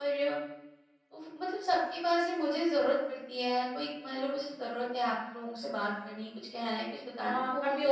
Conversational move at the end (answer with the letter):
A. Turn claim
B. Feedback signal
A